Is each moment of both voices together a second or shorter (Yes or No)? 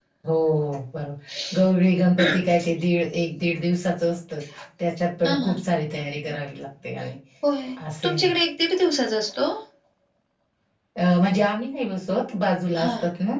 Yes